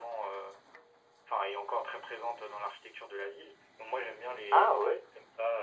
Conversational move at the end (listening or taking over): listening